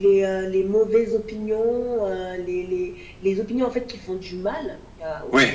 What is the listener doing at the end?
listening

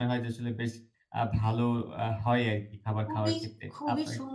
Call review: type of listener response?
taking over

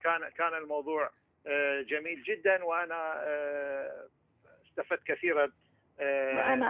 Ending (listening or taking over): taking over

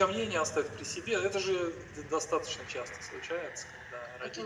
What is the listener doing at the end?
listening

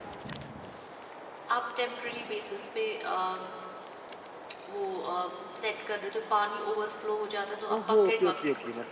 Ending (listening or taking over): taking over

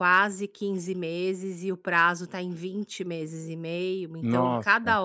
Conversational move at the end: listening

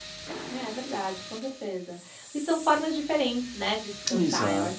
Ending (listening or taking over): listening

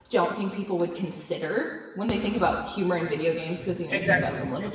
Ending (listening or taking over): taking over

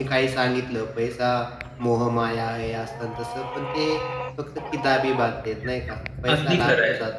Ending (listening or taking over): taking over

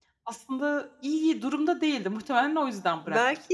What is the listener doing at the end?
taking over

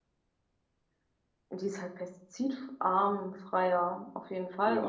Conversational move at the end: taking over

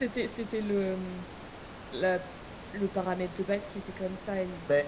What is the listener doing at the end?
listening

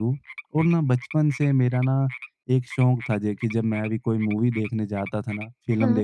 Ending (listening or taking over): listening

